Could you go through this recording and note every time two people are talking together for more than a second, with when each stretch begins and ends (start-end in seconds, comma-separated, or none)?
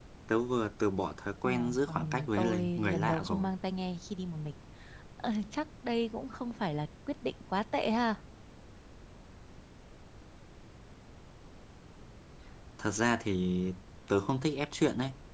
1.4-3.5